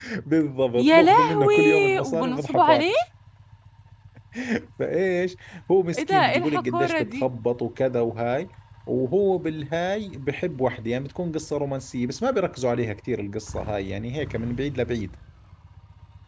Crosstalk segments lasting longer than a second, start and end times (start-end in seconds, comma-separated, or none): 0.8-2.9, 6.0-7.3